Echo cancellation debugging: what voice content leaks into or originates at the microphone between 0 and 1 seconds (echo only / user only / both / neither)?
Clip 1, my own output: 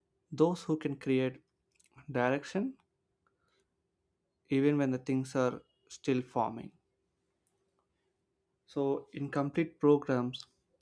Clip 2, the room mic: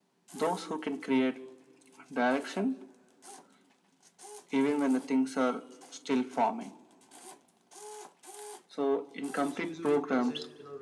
echo only